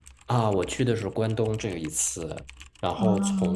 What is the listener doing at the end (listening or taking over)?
listening